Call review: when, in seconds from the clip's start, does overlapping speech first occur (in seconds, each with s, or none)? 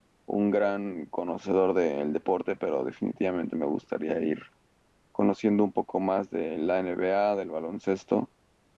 none